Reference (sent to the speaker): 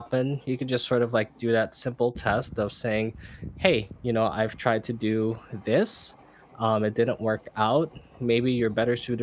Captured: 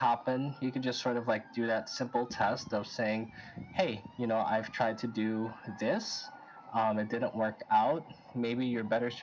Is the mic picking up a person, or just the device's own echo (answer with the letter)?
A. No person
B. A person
A